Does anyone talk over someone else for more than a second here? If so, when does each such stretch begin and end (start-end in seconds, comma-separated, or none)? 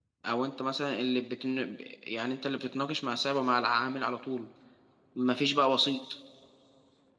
none